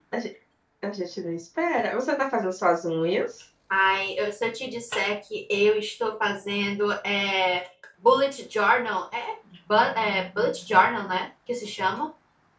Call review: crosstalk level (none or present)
none